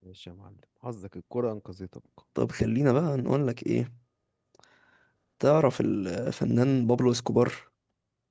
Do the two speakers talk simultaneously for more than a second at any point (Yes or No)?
No